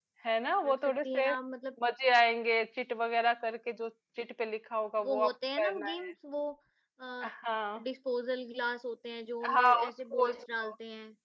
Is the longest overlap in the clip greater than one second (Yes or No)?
Yes